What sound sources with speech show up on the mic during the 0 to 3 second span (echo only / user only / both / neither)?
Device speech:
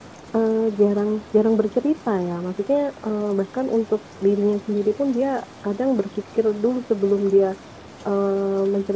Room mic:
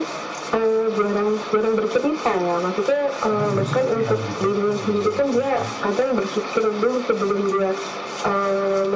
echo only